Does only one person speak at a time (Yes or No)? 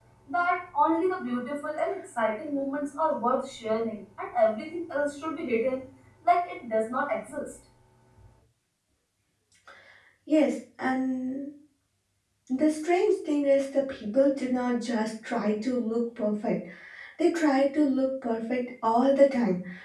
Yes